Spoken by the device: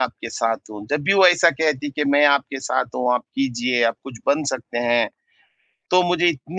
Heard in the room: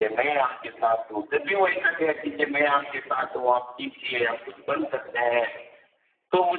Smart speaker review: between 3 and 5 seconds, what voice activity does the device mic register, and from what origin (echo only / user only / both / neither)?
echo only